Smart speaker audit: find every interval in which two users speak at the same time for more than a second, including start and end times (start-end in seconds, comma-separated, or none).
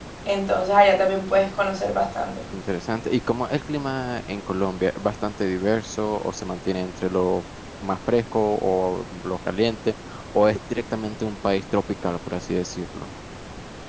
none